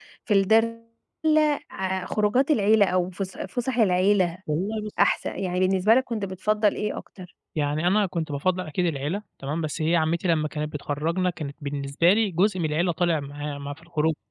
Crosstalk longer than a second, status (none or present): none